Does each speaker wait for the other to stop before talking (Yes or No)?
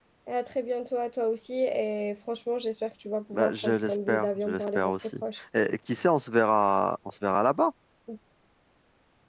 No